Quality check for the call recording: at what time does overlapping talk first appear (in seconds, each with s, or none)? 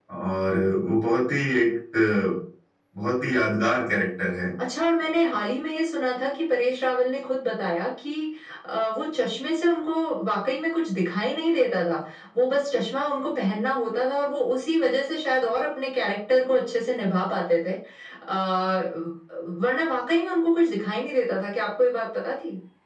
none